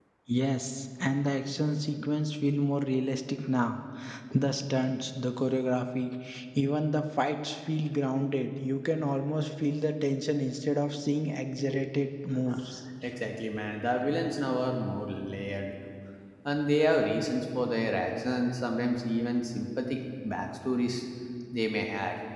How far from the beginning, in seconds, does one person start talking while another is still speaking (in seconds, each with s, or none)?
none